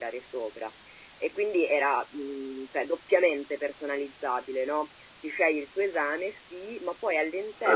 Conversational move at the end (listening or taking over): listening